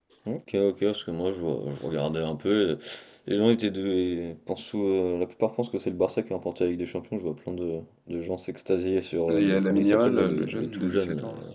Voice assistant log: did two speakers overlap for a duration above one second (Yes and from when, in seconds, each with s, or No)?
Yes, from 9.3 s